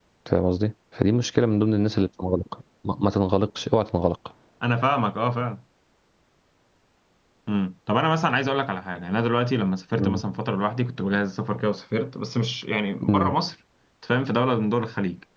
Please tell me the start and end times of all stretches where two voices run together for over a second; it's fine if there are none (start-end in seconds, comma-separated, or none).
none